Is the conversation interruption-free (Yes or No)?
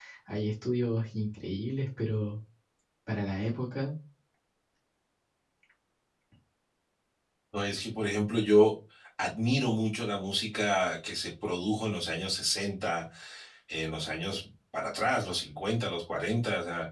Yes